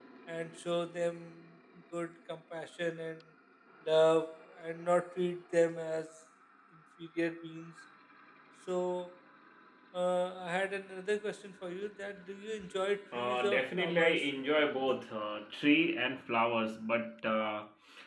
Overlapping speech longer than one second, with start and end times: 13.1-14.6

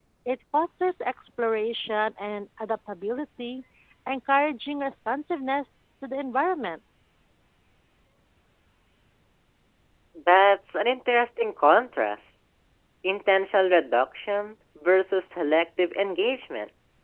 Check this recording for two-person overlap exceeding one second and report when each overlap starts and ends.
none

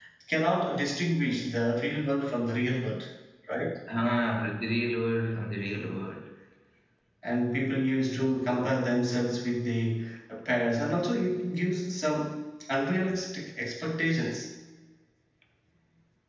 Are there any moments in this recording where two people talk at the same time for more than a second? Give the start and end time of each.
none

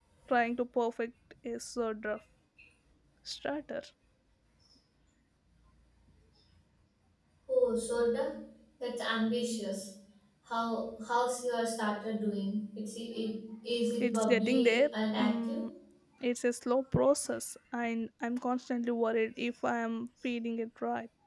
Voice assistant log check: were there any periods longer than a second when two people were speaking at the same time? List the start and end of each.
14.0-15.6

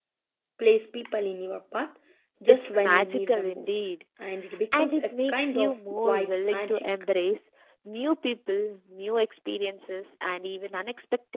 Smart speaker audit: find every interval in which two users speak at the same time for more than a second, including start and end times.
2.5-3.9, 4.7-6.9

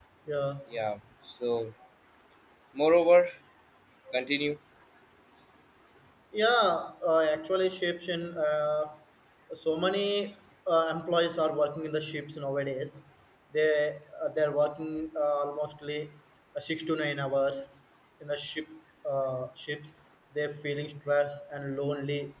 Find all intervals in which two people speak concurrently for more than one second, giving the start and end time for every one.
none

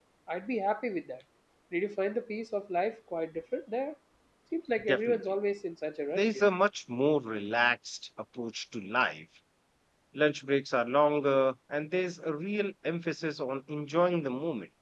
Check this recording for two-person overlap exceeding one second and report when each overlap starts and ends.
none

